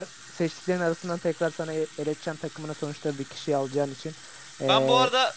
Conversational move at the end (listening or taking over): taking over